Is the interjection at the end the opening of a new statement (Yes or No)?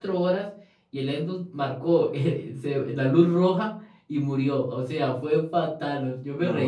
No